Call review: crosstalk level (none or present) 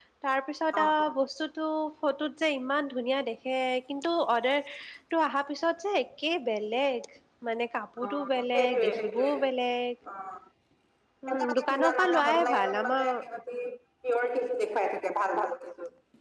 present